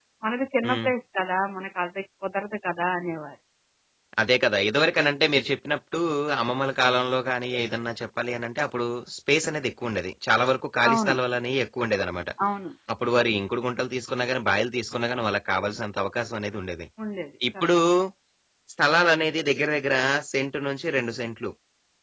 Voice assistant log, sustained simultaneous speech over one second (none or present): none